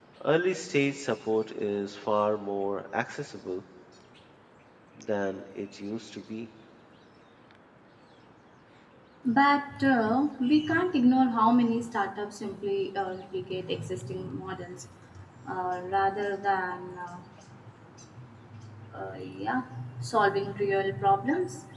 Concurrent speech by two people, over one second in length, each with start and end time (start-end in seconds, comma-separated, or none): none